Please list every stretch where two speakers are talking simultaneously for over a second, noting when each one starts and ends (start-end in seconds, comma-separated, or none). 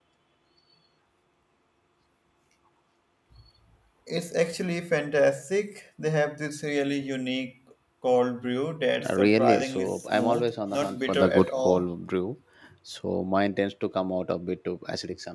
9.1-11.8